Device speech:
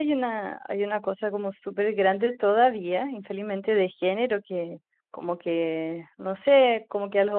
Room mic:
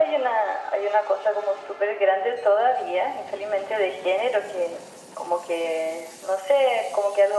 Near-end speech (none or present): none